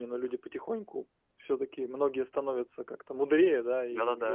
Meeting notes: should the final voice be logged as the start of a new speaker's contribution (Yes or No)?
No